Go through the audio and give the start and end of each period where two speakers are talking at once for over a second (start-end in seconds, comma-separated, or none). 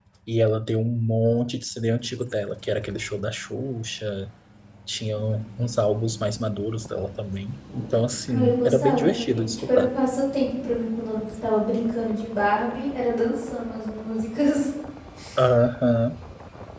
8.3-9.9